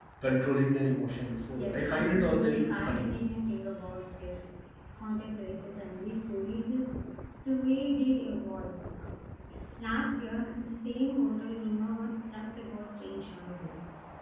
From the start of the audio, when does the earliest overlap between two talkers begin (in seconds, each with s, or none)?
1.5 s